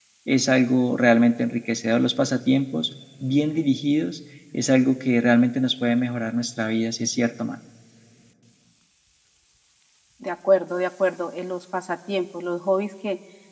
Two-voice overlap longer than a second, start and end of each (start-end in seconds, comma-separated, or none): none